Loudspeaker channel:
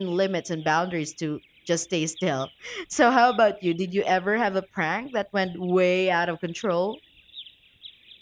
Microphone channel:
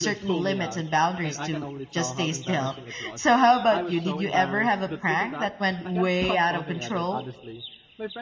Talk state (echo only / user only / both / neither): both